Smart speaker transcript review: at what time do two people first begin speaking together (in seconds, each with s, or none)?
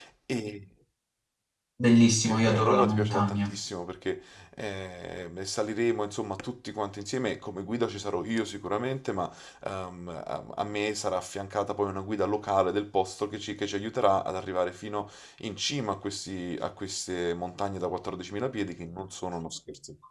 2.2 s